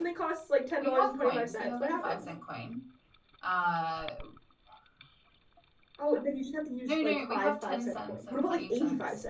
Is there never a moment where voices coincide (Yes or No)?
No